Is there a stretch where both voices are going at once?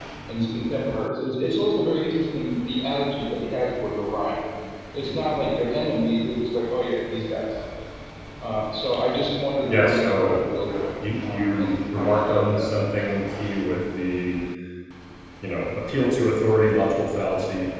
Yes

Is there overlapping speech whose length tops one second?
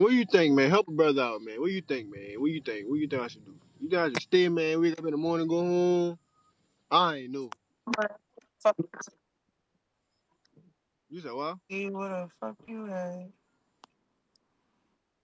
No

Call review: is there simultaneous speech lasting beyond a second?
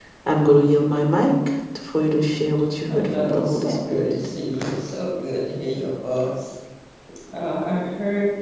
Yes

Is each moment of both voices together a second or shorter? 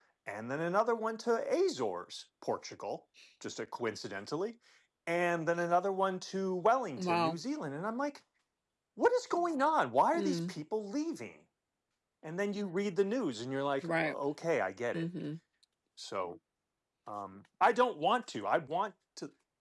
Yes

